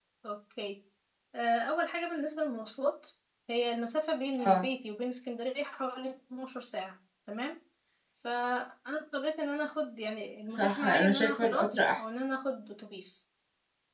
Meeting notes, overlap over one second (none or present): present